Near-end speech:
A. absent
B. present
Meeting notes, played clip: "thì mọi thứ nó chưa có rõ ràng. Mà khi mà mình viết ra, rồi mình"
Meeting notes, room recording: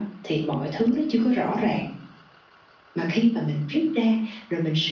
A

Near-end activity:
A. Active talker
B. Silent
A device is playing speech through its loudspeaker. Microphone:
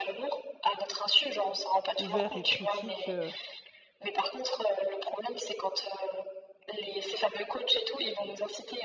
A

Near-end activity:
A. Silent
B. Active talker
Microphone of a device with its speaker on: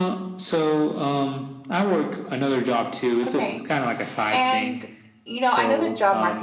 B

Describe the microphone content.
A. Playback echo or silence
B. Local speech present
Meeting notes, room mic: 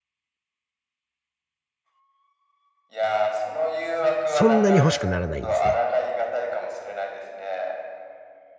B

